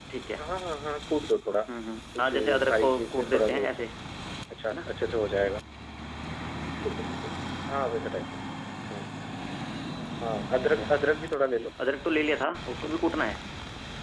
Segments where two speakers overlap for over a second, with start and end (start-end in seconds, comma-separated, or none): 2.2-3.8